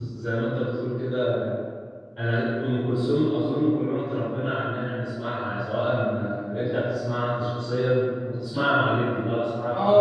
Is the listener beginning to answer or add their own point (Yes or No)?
Yes